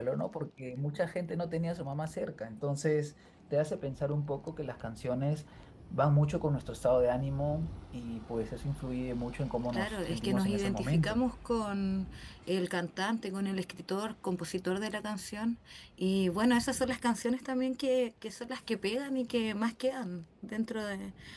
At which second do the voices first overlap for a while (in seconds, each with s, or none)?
9.7 s